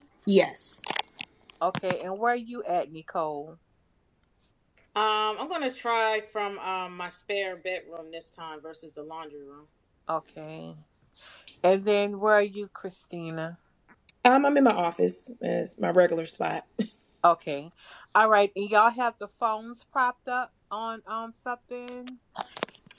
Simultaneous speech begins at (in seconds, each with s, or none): none